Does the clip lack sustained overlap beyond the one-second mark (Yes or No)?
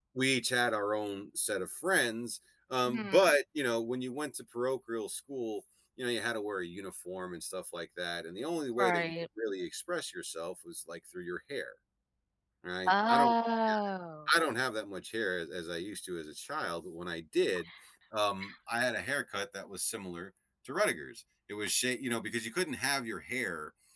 Yes